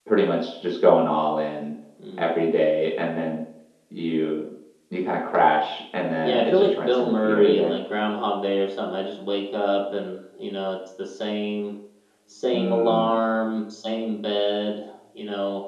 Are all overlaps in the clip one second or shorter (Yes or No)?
No